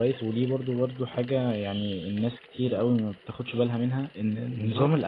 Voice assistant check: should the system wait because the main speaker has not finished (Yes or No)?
Yes